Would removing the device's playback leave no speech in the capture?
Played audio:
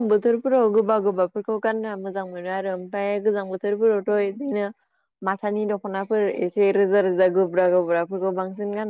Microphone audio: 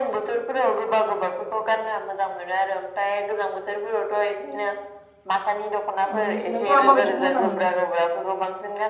No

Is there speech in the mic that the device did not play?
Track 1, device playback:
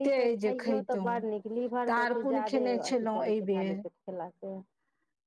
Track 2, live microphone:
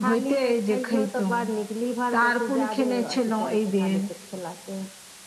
No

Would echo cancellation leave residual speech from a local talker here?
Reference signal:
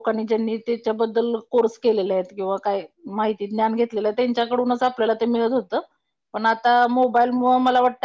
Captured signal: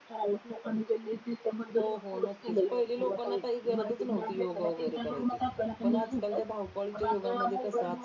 Yes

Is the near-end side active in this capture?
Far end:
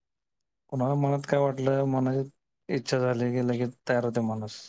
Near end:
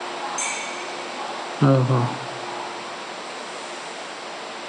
Yes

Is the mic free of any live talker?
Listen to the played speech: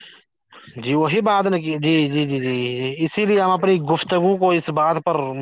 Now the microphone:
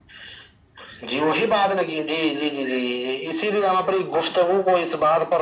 Yes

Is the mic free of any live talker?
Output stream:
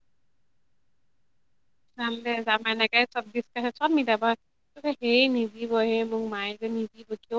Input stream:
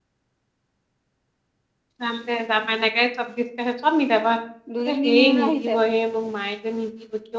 No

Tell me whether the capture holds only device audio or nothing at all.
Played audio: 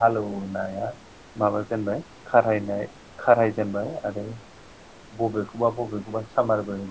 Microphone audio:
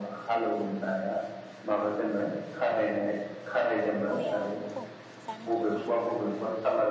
No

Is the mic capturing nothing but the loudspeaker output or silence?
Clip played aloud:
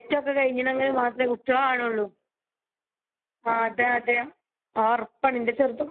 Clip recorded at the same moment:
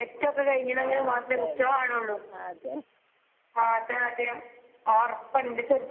No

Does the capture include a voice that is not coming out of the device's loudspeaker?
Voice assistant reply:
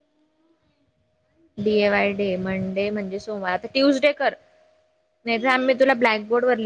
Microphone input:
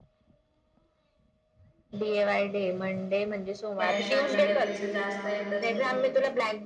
Yes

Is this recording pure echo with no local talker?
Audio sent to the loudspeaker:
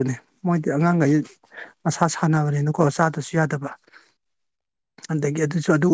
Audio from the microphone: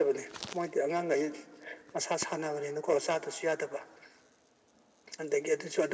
Yes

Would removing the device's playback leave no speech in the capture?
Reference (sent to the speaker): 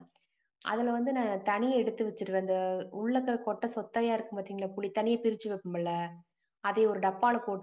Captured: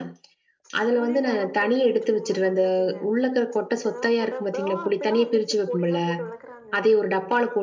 No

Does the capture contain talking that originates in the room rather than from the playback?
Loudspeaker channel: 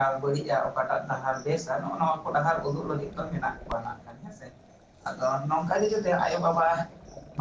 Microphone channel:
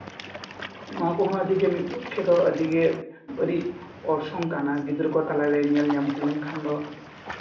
Yes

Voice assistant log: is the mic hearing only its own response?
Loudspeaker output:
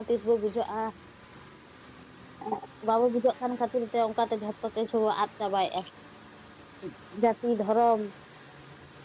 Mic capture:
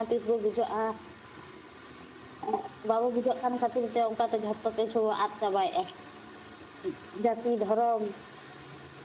Yes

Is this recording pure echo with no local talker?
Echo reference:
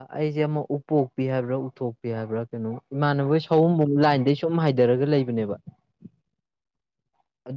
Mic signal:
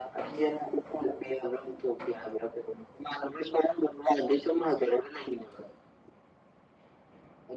Yes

